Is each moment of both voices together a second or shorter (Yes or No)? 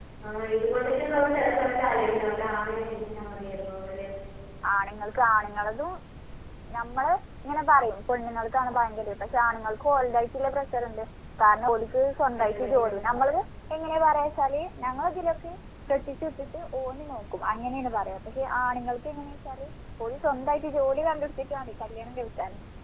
Yes